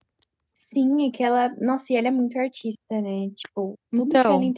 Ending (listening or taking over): listening